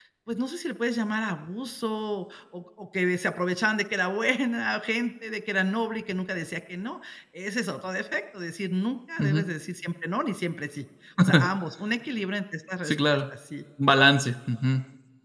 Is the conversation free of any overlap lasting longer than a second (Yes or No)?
Yes